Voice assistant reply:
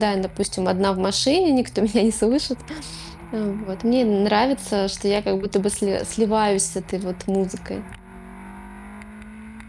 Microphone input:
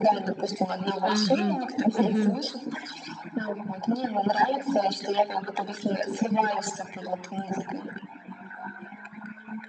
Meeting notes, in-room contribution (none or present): present